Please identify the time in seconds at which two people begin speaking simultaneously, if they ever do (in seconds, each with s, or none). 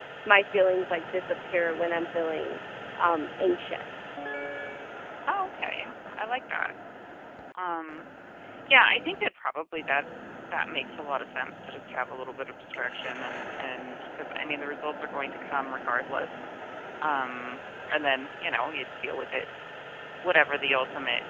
none